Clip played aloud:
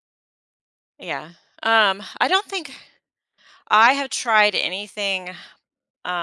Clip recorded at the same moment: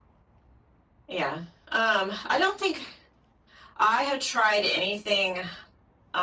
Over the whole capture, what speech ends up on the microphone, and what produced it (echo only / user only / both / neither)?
echo only